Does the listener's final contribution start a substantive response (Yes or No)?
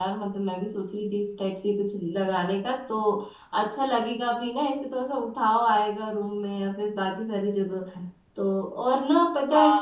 Yes